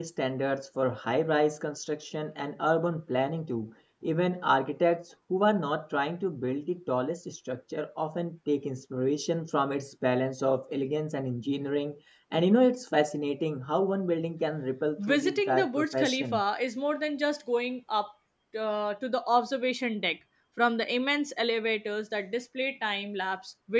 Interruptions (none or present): present